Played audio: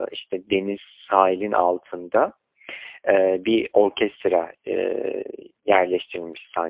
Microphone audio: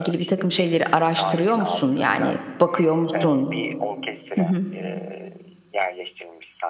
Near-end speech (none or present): present